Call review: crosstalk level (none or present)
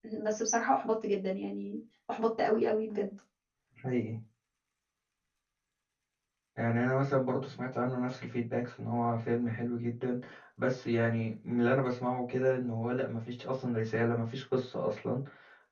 none